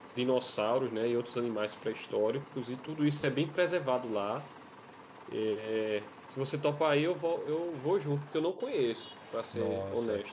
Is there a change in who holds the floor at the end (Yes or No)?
Yes